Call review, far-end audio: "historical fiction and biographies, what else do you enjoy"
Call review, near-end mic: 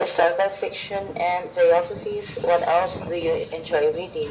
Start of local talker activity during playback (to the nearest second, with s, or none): none